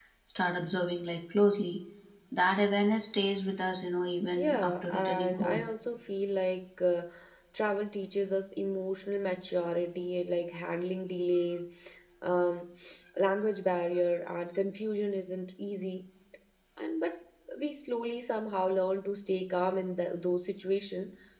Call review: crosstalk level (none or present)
present